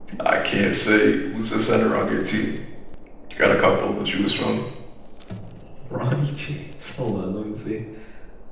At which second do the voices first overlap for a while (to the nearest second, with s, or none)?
none